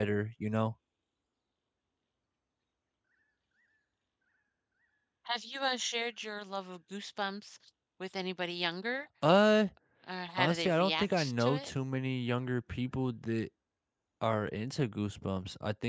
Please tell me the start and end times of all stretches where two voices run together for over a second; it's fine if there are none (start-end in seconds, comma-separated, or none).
10.4-11.7